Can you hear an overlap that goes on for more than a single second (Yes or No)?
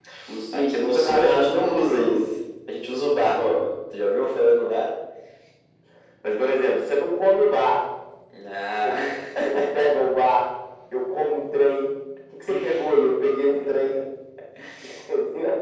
Yes